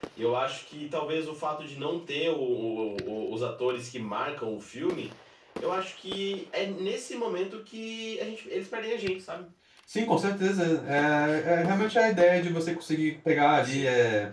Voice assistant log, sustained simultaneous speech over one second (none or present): none